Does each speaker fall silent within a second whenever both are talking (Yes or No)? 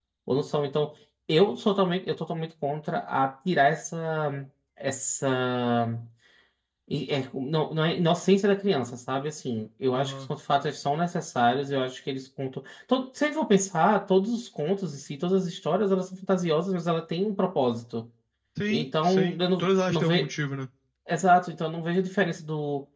No